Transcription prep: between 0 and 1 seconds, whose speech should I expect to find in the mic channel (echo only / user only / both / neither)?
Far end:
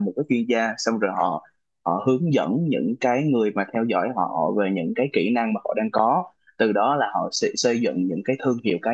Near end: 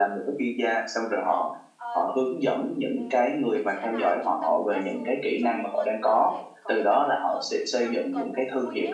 echo only